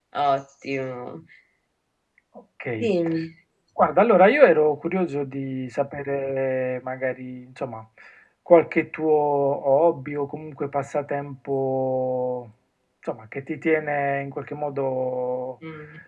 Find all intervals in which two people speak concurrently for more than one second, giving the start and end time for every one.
none

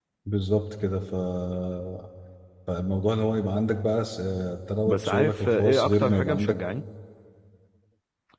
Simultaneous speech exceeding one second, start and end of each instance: 4.8-6.6

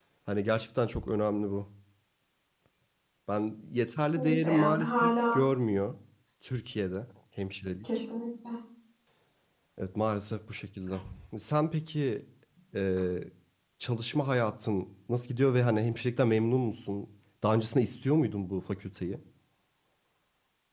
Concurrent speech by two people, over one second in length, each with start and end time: 4.2-5.4

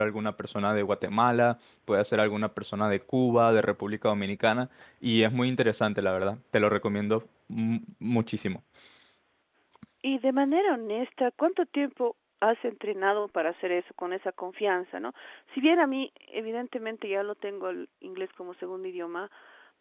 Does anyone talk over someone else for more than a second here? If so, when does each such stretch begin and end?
none

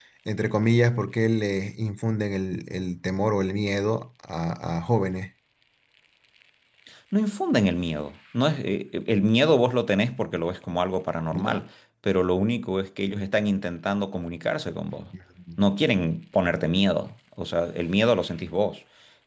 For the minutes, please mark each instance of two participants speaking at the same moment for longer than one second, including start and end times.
none

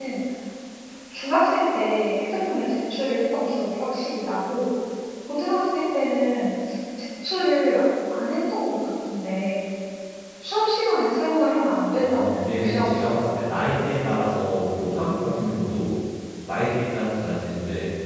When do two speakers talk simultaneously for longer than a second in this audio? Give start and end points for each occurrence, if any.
12.0-13.4

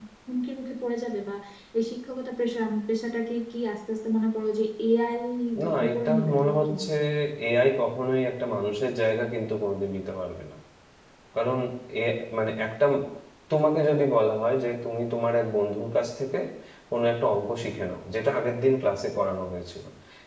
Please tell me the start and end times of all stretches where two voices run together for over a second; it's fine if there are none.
5.7-6.9

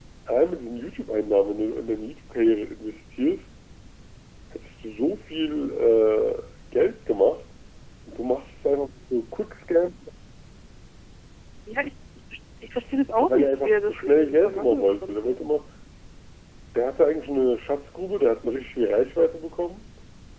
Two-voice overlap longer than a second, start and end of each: 13.2-15.4

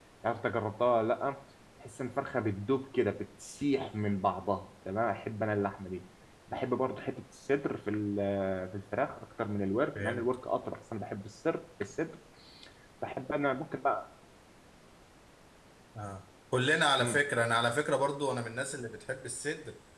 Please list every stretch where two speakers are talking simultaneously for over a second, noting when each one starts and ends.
none

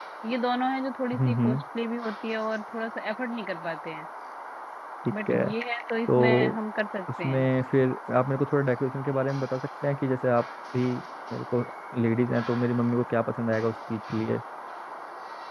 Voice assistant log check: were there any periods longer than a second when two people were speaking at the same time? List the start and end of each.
none

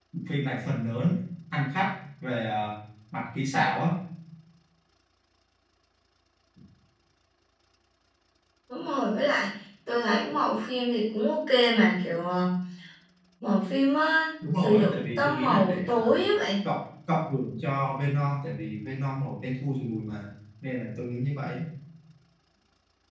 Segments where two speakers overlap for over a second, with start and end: 14.6-16.2

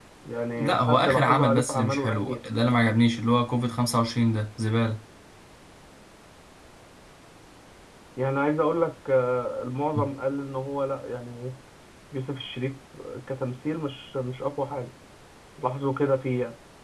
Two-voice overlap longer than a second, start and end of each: 0.6-2.4

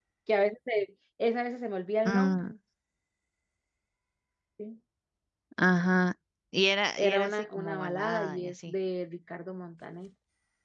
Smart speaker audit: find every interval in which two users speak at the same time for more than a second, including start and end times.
7.0-8.7

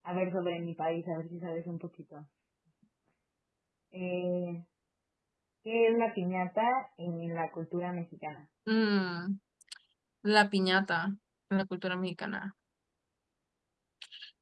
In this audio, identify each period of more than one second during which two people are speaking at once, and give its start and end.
none

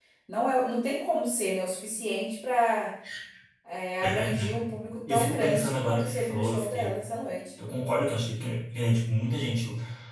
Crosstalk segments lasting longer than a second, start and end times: 5.1-6.9

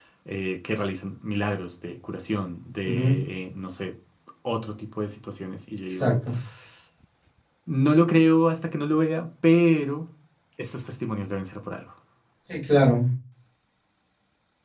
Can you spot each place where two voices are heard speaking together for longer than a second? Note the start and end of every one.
none

